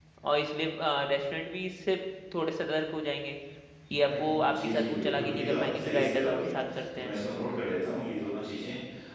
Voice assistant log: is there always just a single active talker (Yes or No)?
No